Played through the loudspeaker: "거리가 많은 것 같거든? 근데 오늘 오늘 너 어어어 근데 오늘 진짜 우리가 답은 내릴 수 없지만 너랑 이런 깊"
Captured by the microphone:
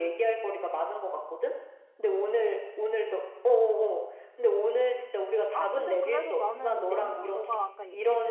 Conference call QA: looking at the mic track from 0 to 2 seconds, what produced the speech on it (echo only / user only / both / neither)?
echo only